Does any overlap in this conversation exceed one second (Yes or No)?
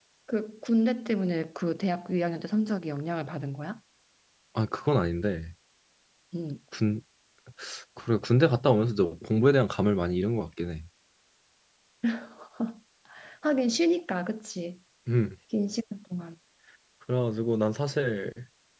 No